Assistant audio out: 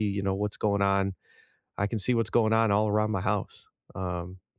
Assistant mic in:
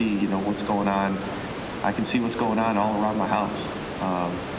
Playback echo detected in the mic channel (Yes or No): Yes